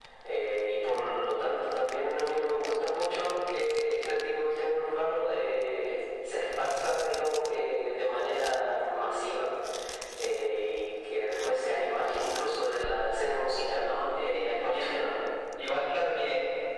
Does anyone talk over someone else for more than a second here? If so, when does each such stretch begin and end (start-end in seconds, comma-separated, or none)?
13.7-15.1